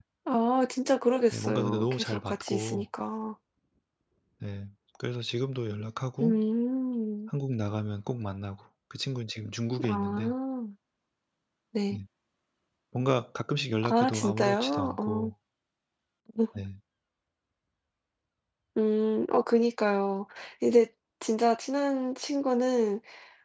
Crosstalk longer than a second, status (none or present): present